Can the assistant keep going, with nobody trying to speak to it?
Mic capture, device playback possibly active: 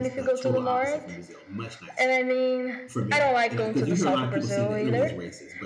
No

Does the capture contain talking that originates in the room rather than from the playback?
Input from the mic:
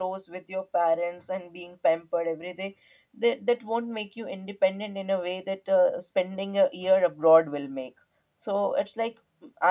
Yes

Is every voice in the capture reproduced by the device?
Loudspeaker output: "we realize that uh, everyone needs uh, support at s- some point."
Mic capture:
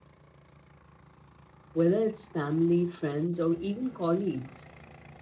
No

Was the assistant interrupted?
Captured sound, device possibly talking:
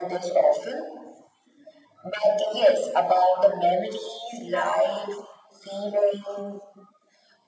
No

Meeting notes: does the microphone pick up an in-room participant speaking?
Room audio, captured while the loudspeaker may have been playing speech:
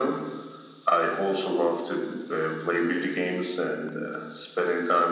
No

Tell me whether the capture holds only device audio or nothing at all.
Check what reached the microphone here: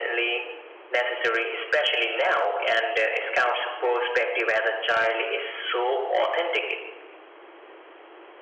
Yes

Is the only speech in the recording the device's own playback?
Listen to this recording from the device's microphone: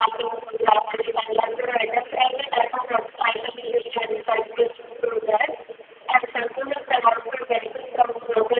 Yes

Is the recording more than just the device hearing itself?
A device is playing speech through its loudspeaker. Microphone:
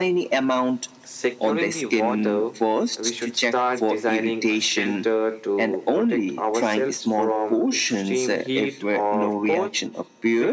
No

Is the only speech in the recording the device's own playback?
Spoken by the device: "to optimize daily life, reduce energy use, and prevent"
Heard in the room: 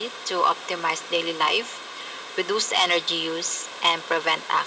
Yes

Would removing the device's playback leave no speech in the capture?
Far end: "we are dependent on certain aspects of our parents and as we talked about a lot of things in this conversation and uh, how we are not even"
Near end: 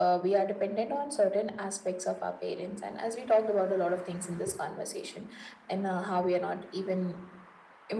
Yes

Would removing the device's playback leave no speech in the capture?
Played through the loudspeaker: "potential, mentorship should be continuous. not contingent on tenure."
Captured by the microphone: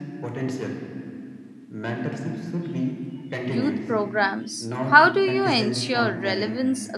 No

